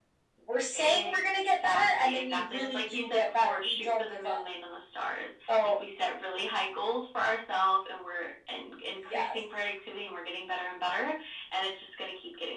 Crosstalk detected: Yes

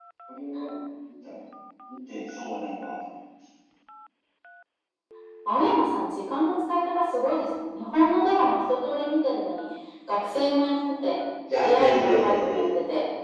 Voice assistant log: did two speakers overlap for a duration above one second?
Yes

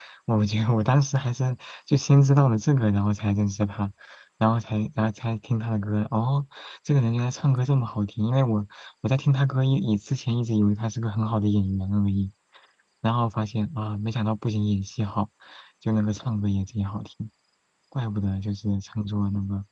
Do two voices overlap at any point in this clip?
No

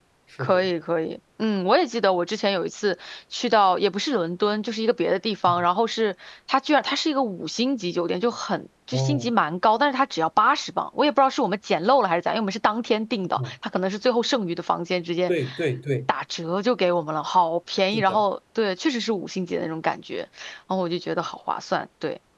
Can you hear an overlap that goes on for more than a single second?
No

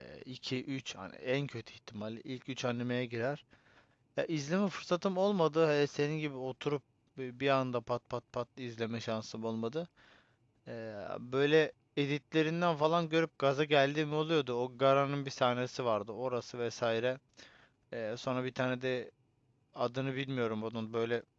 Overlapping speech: No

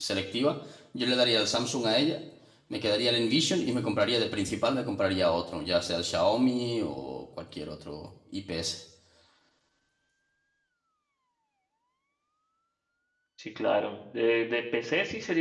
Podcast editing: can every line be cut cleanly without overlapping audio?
Yes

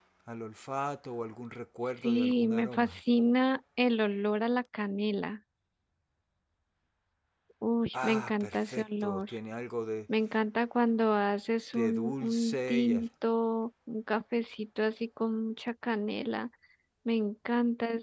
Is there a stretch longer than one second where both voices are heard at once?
Yes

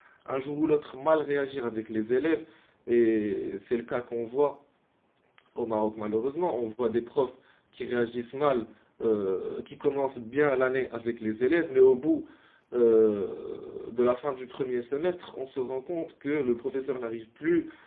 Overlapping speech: No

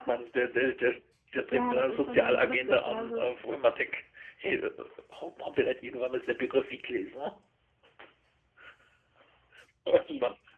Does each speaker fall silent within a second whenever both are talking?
No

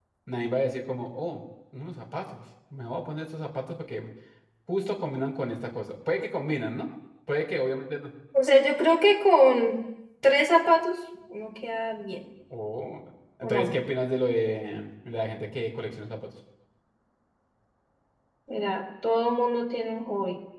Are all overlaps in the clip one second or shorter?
Yes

